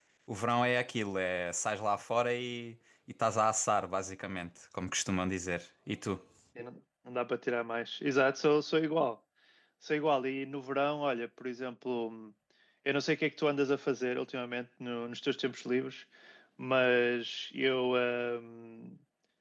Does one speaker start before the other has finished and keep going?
No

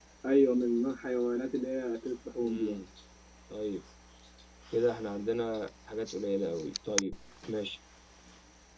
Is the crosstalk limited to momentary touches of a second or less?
Yes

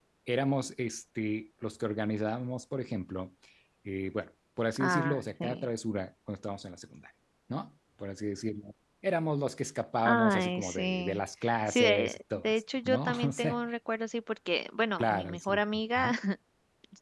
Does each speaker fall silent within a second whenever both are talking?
No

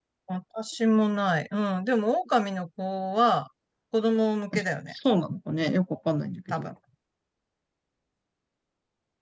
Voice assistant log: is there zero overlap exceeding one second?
Yes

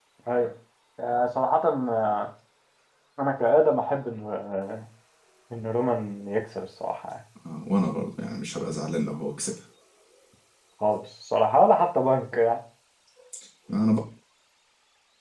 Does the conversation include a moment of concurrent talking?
No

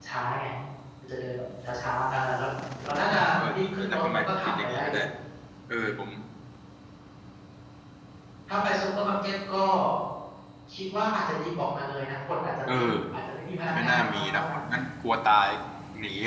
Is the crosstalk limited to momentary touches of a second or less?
No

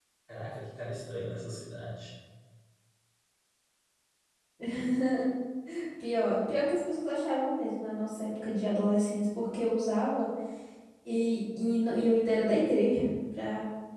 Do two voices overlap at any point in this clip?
No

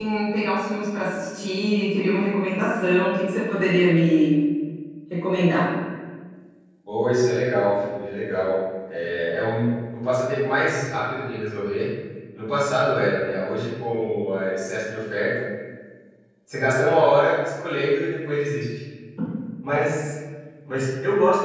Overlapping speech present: No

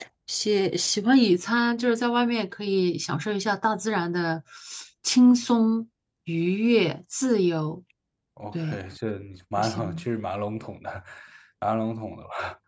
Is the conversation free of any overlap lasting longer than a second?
Yes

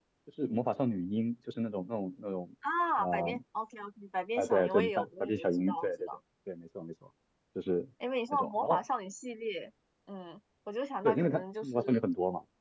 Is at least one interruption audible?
Yes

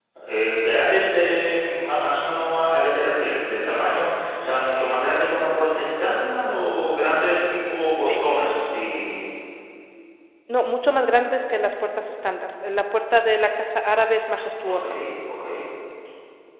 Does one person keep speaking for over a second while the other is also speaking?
No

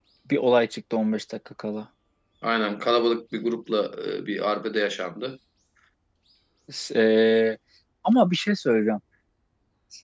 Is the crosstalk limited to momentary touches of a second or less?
Yes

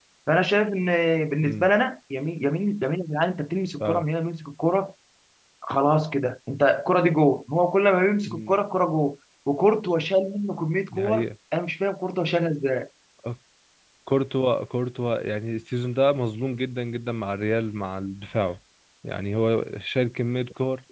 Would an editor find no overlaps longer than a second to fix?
Yes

